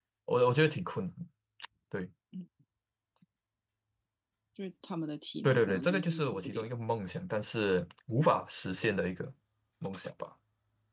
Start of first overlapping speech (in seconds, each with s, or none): 5.4 s